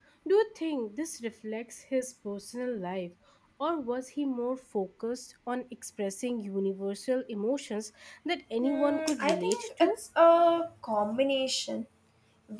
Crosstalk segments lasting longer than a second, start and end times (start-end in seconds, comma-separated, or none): 8.6-10.0